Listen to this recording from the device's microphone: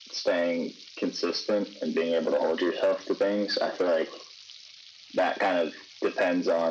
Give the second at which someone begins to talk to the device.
none

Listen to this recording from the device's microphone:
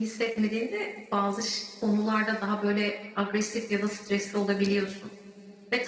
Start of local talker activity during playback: none

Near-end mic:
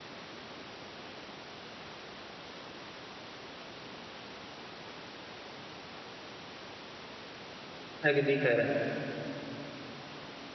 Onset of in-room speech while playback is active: 8.1 s

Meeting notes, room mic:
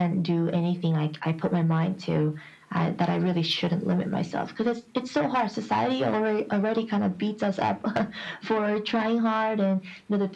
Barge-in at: none

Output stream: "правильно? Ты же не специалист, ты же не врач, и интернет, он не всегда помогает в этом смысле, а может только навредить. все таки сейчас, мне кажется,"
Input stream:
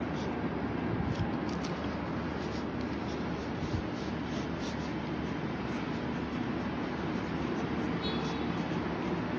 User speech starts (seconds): none

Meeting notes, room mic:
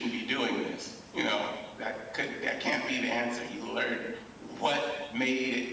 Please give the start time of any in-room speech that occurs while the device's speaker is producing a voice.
none

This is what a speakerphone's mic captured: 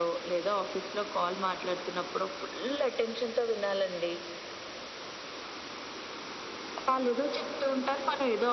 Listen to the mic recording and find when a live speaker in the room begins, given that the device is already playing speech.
none

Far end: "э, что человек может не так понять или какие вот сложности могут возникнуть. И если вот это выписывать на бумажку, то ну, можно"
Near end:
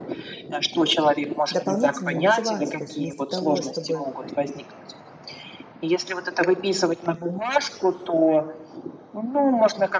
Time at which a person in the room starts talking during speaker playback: 1.5 s

